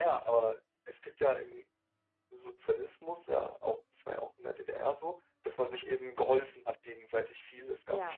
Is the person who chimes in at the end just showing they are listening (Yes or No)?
Yes